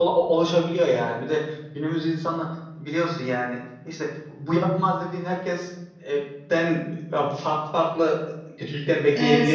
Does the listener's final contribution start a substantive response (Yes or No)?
Yes